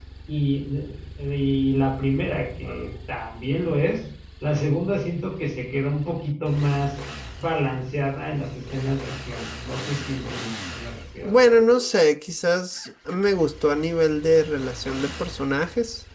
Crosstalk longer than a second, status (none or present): none